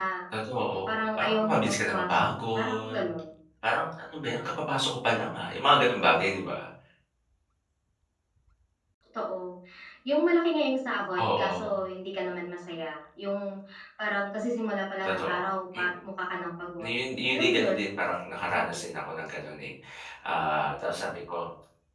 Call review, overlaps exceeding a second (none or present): present